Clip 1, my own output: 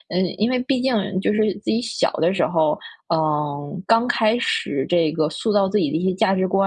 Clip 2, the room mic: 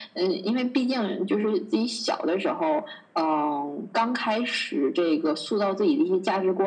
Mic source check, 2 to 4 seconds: echo only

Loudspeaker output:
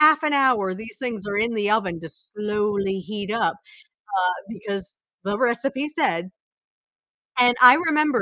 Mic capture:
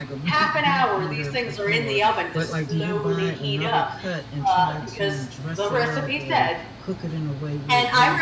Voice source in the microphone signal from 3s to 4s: both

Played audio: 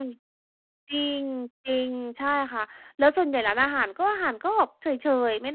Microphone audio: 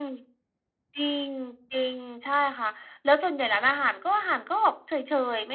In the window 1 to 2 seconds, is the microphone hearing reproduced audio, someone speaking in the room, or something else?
echo only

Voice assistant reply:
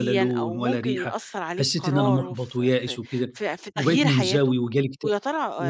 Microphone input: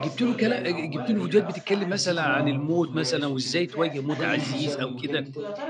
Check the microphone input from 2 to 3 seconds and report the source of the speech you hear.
both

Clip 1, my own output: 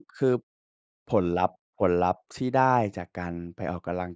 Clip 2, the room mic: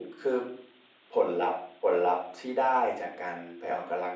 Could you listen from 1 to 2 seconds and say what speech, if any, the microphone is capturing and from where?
echo only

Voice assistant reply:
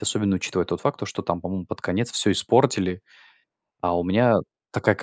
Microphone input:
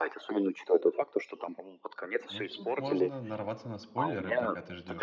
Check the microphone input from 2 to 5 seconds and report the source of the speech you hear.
both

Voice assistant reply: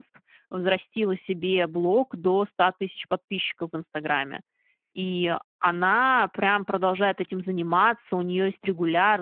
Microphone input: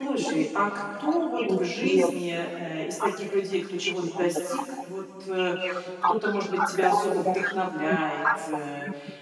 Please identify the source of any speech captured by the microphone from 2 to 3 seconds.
both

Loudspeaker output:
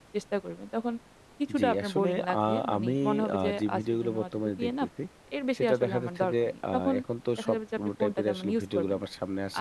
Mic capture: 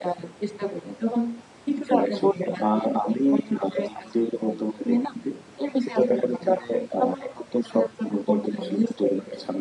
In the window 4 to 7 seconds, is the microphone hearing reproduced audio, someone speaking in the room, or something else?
echo only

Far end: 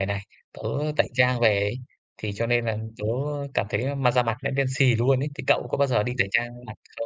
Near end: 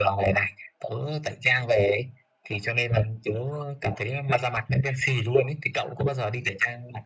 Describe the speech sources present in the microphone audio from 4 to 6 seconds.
echo only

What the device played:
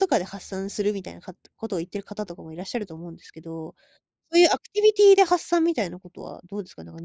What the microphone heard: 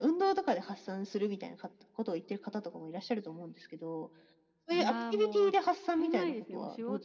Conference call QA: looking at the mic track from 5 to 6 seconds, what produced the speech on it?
both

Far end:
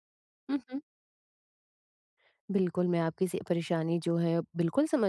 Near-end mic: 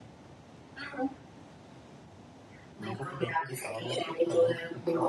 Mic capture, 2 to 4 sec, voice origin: both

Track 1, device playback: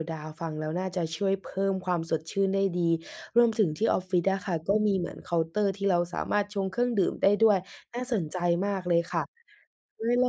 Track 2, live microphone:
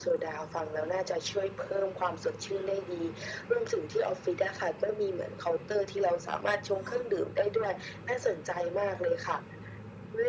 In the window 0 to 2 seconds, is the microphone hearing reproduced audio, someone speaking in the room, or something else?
echo only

